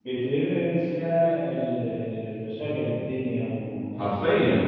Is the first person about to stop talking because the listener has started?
No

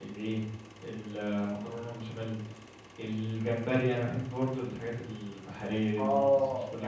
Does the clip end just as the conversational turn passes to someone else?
Yes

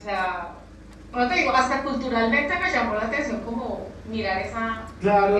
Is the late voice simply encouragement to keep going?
No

